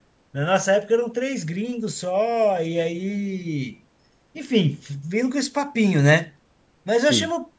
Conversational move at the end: listening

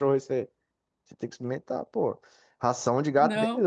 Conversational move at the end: listening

